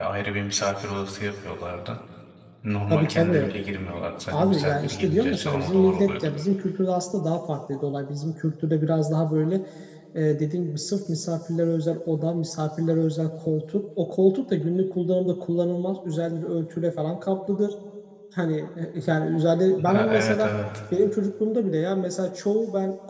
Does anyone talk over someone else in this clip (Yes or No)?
Yes